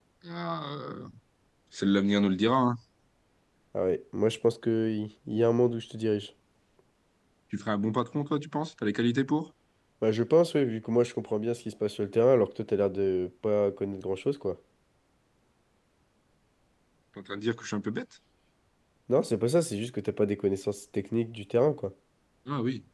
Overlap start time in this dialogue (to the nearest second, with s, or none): none